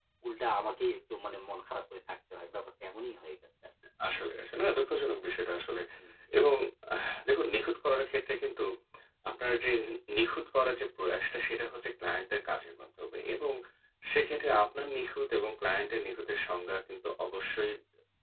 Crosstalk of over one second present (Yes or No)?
No